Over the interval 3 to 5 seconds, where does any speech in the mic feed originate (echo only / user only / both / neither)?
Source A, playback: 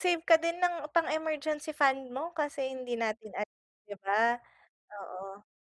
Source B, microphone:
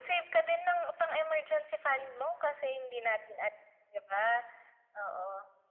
echo only